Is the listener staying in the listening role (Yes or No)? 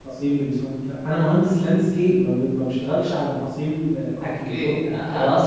No